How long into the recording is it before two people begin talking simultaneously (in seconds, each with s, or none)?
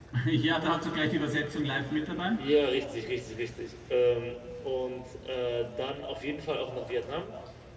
none